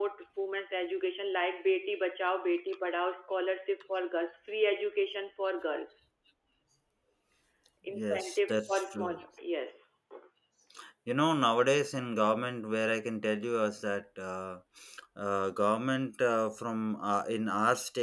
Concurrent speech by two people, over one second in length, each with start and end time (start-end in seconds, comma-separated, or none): 7.9-9.2